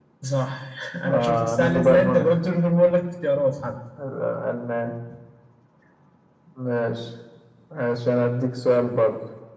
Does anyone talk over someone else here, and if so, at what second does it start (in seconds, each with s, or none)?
1.1 s